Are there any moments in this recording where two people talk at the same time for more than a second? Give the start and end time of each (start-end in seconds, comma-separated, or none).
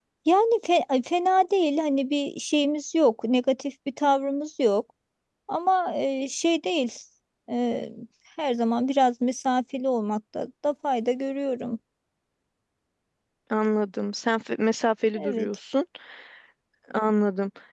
none